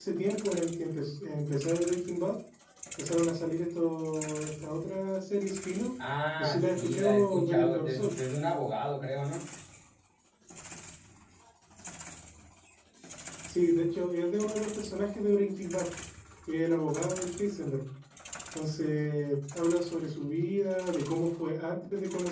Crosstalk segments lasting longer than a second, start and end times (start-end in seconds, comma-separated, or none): 6.4-8.2